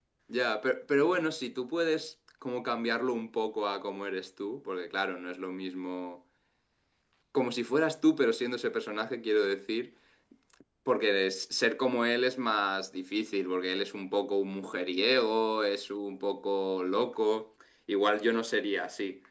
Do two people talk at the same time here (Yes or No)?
No